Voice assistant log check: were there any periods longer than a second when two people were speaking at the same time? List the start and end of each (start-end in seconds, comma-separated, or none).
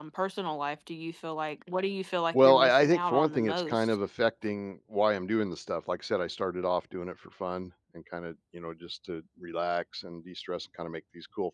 2.3-4.0